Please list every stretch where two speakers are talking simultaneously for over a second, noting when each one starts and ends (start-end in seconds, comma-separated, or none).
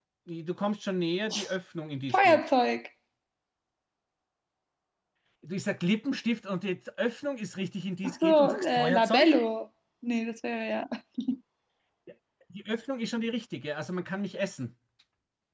8.0-9.3